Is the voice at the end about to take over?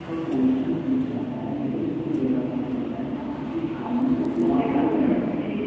Yes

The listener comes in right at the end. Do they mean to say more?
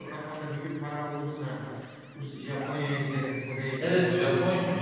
Yes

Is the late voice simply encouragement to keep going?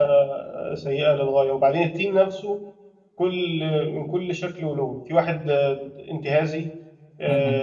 Yes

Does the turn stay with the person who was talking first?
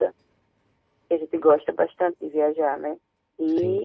Yes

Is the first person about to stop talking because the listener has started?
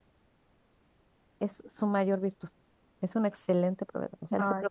No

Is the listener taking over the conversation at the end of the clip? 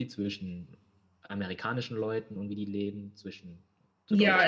Yes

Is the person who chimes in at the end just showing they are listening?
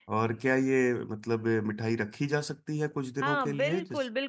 No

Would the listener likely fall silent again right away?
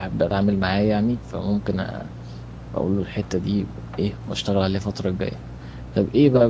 Yes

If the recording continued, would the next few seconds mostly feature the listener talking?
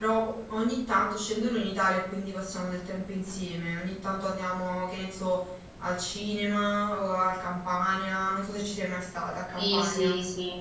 Yes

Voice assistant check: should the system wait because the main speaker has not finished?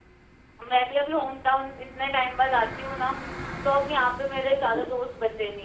Yes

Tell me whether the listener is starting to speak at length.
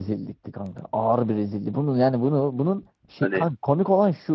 No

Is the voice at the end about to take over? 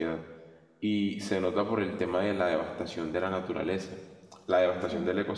No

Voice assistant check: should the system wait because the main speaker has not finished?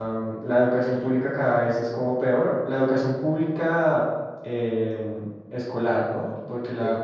Yes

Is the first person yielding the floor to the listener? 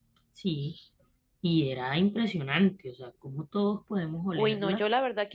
Yes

